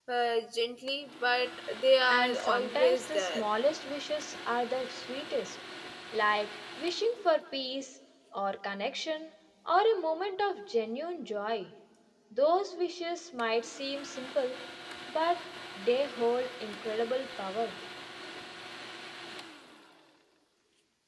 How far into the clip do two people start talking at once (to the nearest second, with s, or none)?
2 s